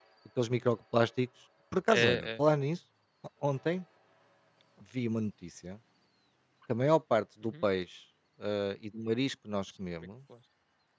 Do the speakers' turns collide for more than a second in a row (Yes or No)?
No